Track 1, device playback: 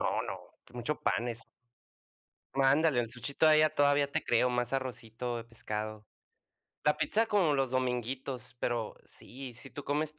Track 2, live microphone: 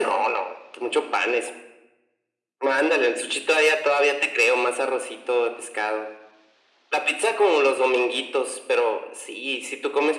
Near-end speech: none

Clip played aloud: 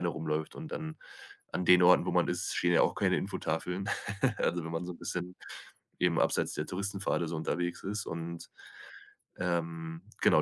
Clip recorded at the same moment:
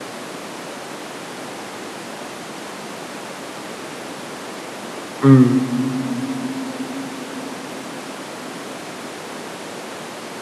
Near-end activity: present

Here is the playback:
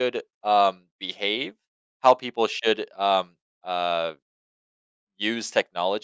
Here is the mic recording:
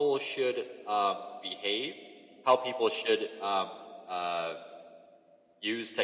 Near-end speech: none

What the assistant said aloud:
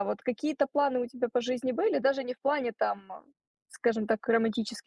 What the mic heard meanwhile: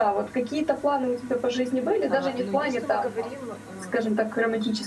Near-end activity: present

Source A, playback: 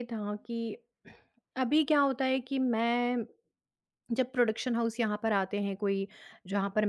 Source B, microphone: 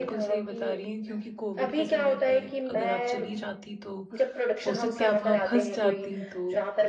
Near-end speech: present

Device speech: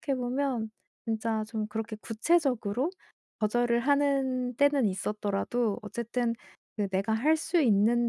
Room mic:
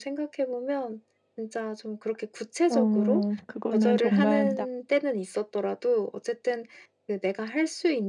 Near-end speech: present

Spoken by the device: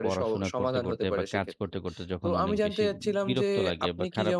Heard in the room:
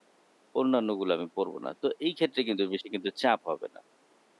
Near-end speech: present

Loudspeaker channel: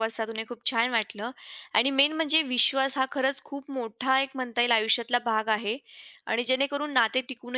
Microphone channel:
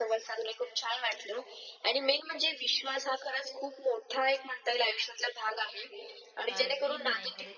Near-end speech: present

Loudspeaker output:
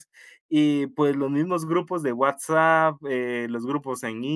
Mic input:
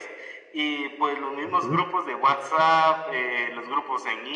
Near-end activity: present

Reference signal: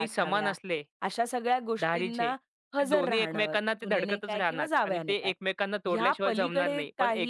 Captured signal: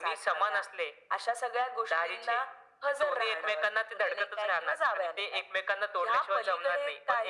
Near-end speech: none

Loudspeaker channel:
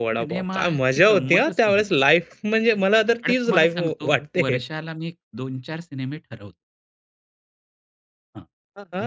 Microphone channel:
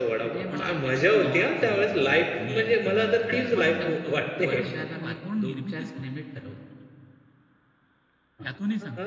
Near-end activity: present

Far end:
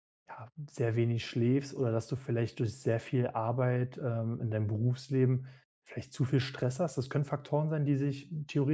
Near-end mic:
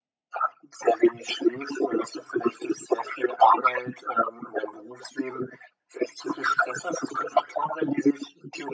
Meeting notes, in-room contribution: none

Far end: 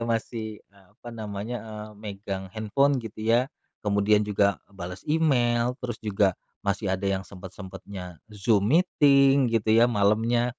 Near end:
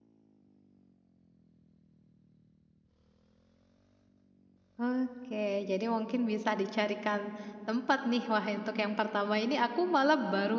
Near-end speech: present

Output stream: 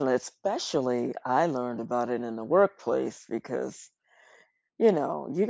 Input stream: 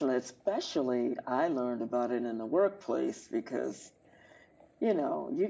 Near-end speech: none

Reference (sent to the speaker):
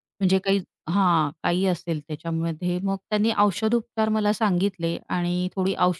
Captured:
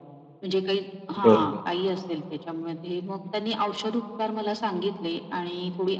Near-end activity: present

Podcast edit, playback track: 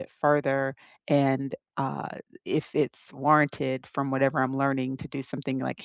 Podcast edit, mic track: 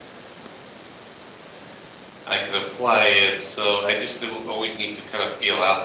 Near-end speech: present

